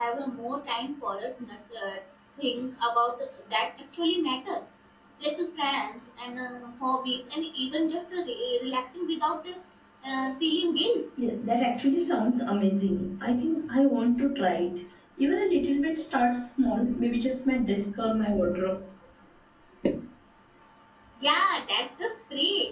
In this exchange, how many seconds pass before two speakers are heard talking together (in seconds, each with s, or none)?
none